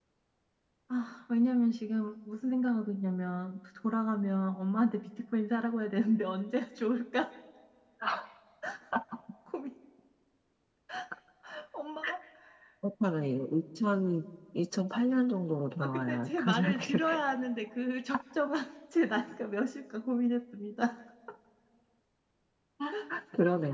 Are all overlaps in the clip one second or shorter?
No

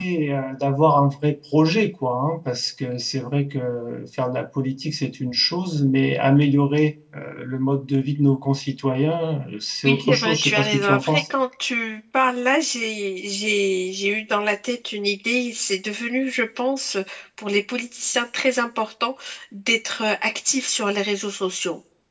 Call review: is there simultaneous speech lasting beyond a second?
Yes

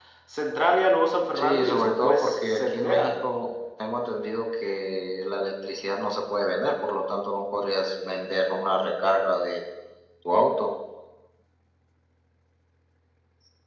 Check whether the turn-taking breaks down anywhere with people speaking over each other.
Yes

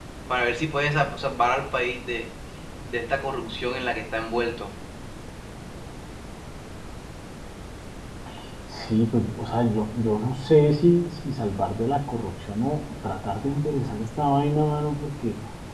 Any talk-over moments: No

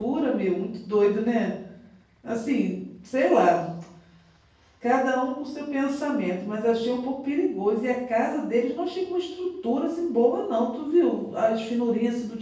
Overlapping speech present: No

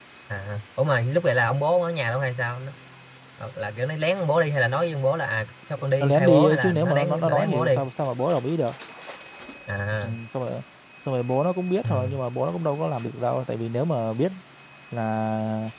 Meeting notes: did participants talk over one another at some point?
Yes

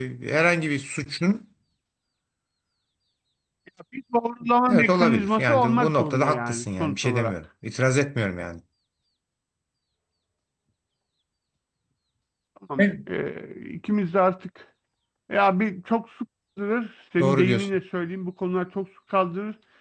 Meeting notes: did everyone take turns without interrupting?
No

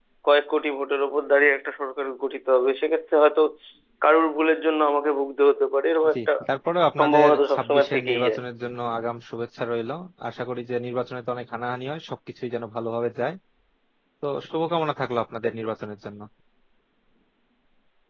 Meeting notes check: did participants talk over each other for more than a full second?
Yes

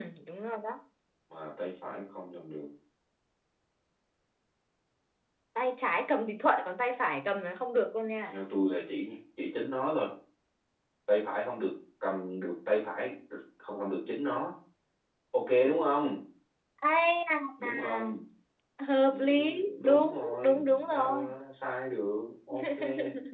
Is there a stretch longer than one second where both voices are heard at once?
Yes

